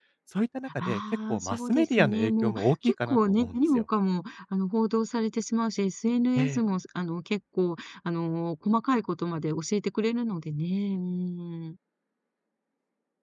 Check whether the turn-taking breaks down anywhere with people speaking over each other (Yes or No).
Yes